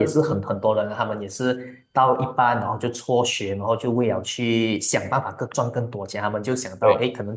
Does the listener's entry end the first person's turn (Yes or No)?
No